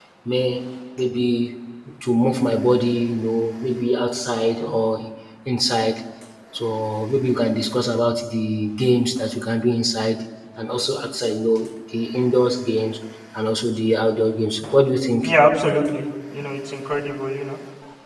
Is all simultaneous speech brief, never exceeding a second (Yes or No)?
Yes